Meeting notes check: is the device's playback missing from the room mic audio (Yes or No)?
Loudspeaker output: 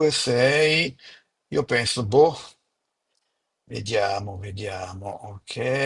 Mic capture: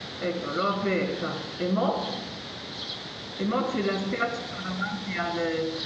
Yes